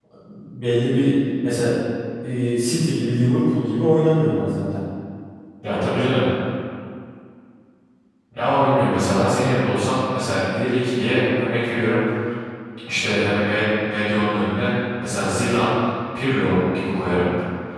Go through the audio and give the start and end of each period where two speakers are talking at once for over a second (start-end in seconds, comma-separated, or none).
none